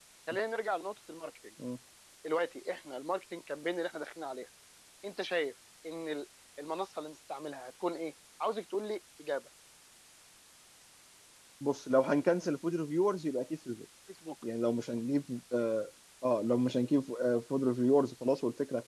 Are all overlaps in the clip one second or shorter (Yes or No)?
Yes